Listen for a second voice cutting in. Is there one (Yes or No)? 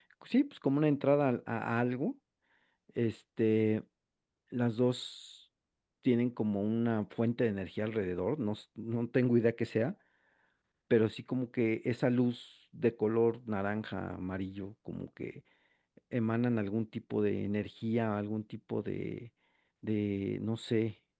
No